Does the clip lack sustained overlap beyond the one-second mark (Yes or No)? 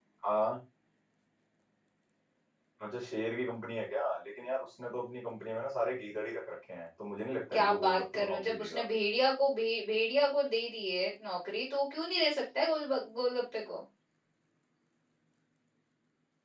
No